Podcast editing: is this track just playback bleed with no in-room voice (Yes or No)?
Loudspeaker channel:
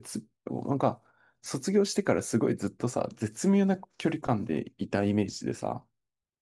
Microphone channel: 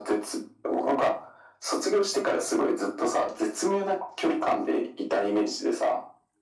Yes